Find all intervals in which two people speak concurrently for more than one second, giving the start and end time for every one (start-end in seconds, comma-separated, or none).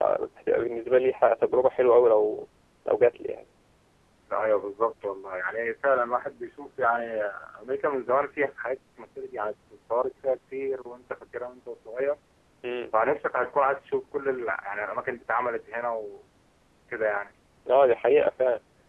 none